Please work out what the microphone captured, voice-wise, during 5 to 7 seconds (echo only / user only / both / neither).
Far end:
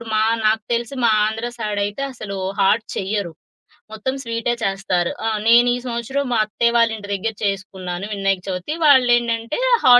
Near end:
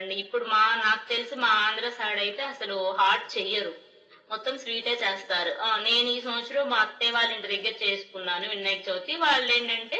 echo only